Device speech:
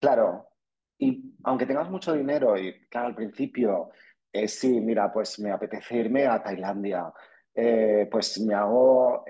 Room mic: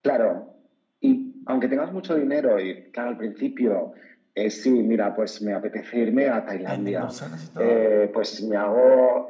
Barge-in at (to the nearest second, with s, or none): 7 s